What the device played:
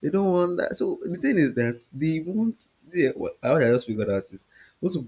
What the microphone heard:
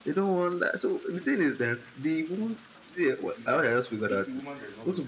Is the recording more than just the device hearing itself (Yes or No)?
Yes